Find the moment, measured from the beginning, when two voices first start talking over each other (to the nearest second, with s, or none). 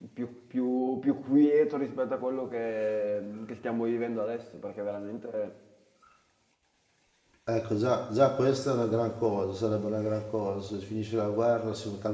none